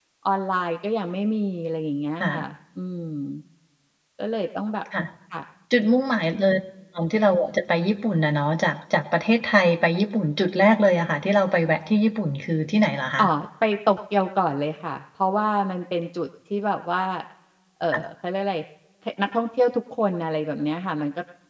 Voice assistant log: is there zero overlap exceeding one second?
Yes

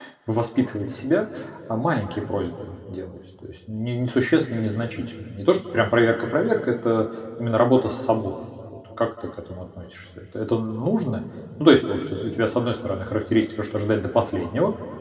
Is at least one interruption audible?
No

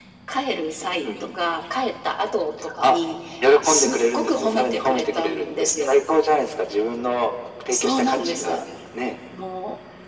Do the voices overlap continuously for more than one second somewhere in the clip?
Yes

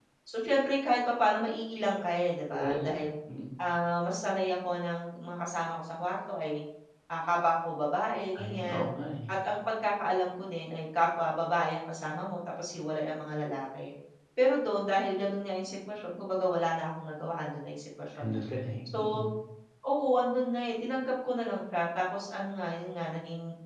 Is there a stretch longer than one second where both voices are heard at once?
No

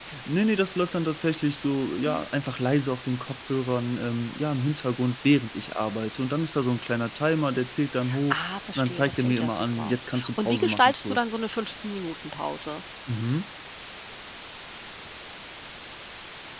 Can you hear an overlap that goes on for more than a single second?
Yes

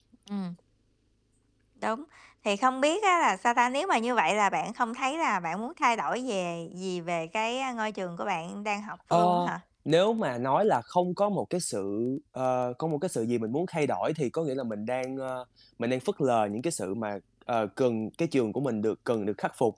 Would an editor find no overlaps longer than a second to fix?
Yes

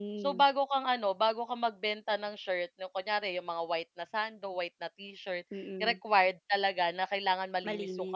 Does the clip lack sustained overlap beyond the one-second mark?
Yes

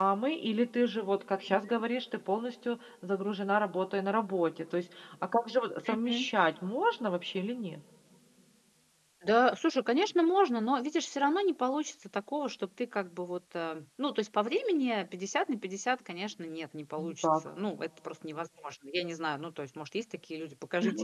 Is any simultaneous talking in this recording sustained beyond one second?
No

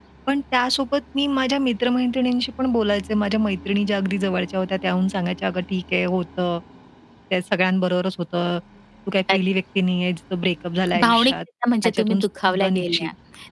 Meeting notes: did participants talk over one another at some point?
Yes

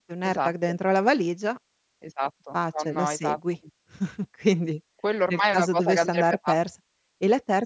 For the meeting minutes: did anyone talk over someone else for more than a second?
Yes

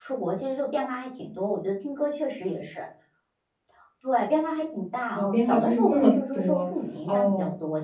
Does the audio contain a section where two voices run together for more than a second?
Yes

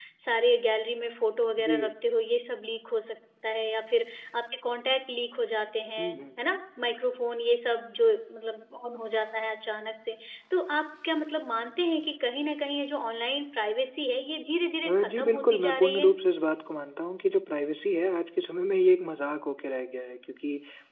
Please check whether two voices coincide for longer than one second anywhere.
Yes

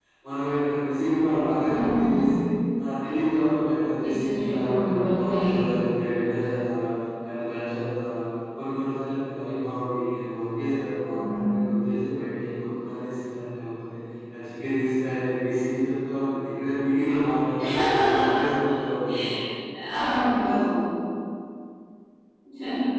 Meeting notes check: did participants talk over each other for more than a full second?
Yes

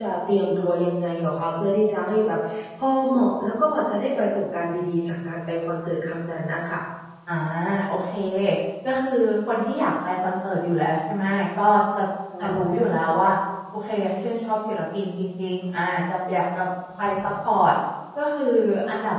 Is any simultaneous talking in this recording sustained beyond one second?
No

